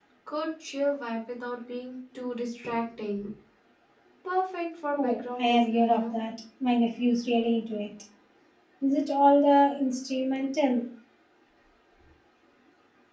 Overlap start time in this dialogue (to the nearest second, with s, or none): 5 s